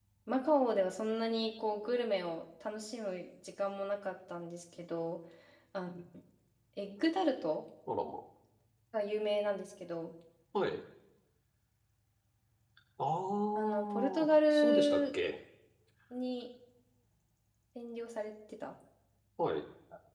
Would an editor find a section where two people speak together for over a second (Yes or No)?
Yes